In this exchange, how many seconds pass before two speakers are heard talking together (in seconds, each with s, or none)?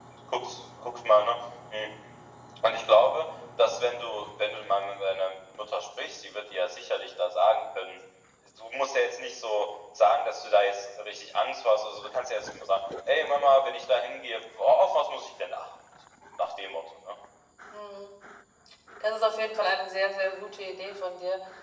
none